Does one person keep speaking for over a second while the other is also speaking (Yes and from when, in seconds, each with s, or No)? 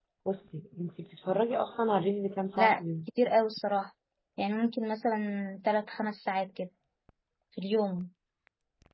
No